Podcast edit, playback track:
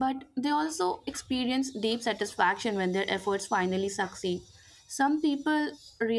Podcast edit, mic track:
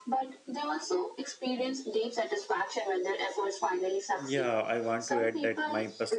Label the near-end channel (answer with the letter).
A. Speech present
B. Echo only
A